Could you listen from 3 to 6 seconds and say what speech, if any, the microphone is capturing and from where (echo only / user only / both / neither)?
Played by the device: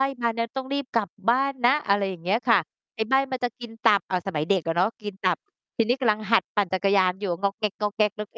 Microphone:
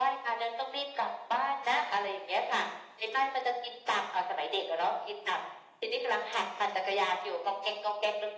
echo only